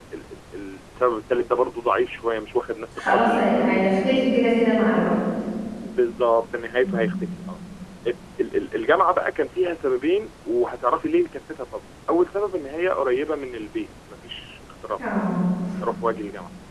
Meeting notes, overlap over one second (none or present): present